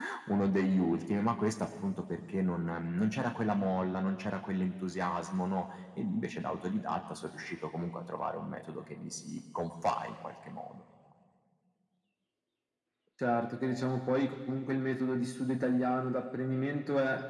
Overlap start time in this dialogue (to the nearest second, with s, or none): none